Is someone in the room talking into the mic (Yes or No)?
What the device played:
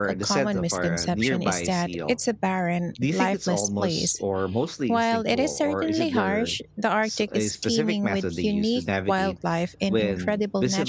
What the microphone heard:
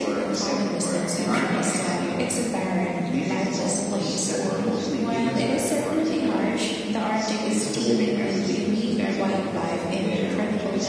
Yes